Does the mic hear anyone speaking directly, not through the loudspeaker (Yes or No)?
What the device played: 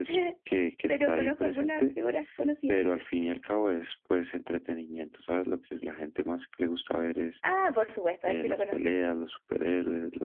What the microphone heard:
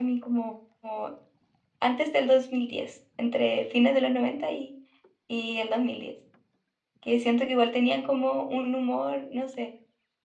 Yes